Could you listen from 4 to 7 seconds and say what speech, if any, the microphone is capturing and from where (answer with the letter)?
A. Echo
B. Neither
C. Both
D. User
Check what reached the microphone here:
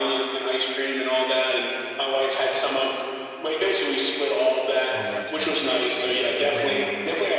C